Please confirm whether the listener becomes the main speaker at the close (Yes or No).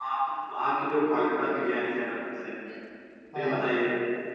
No